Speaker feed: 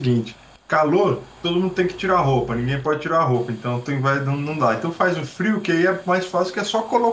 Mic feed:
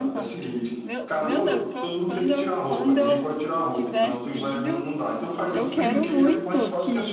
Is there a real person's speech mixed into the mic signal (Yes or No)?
Yes